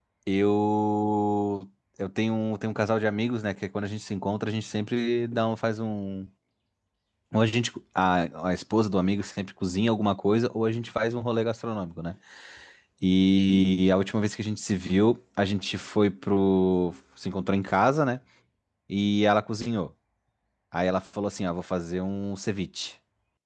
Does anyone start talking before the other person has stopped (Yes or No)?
No